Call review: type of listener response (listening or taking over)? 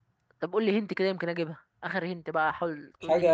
taking over